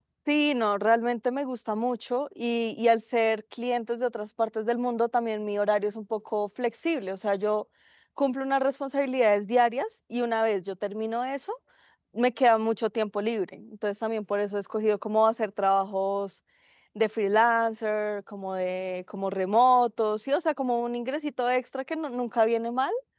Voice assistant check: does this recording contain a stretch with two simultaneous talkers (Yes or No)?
No